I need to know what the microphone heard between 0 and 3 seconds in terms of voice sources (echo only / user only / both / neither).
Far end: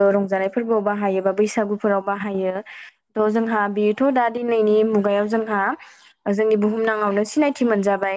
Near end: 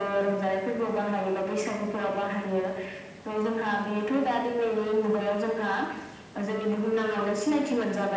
echo only